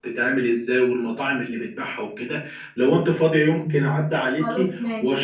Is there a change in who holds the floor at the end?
No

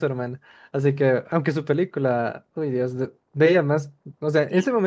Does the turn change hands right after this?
No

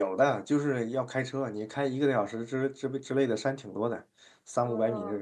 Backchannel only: No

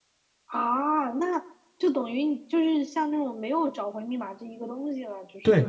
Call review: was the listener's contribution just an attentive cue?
No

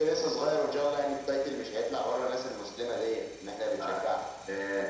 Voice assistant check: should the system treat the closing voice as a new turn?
Yes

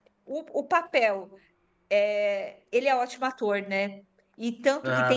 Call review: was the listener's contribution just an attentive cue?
Yes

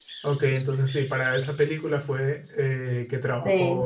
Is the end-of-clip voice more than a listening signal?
No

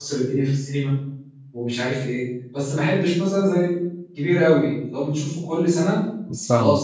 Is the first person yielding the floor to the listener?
No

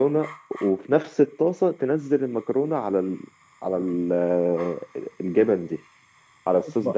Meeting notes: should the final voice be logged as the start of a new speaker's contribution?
Yes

